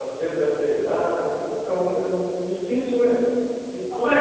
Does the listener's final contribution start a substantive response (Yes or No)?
Yes